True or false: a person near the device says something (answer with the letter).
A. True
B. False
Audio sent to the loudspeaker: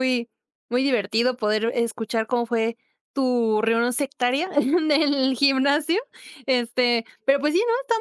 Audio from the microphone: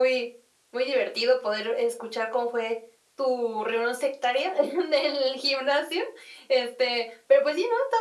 B